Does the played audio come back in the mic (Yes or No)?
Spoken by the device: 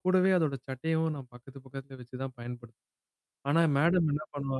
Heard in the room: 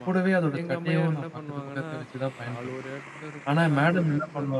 Yes